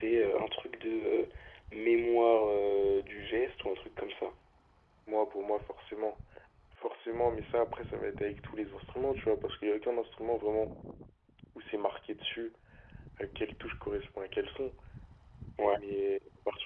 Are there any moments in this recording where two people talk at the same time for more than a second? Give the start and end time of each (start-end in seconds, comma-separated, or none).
none